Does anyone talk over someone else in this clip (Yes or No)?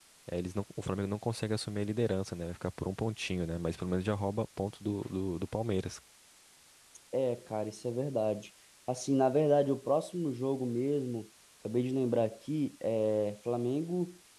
No